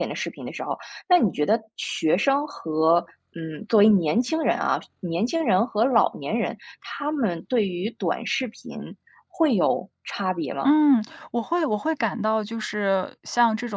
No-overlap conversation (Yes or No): Yes